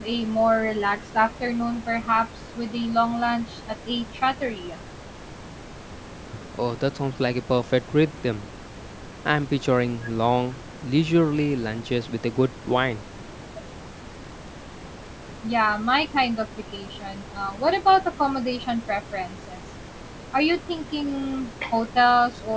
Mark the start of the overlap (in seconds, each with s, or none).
none